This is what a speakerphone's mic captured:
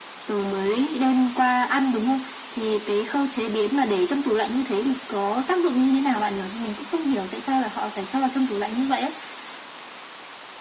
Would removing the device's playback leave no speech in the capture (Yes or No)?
Yes